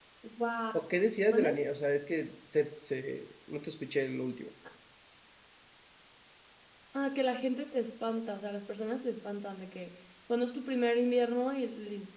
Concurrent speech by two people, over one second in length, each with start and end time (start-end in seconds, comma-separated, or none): none